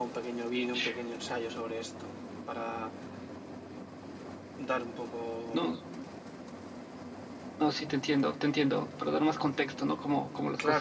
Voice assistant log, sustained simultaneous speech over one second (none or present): none